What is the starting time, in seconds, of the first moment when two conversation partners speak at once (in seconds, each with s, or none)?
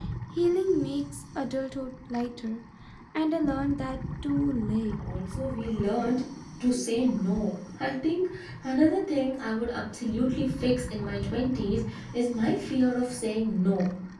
none